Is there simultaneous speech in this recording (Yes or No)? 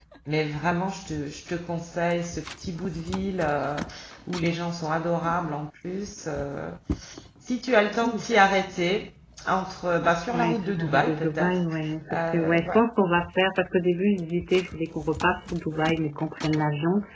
Yes